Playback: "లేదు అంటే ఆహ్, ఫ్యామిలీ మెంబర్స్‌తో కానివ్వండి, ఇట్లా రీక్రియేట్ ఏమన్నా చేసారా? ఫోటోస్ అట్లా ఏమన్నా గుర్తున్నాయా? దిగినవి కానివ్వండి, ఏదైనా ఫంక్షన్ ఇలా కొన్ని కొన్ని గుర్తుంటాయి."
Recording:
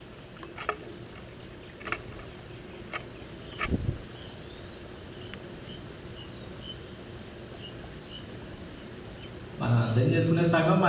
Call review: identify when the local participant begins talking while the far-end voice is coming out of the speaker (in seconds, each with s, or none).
9.6 s